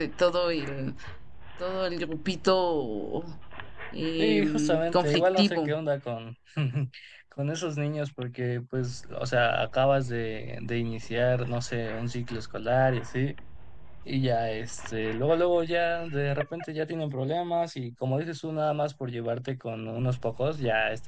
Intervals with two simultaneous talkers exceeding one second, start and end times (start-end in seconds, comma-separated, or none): 4.2-5.7